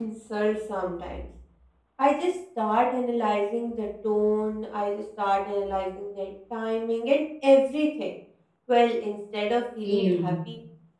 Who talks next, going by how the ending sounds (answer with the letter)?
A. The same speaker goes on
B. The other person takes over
A